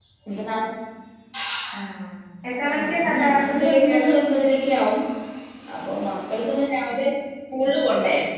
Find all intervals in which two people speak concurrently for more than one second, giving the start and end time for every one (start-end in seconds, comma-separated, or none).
2.7-4.1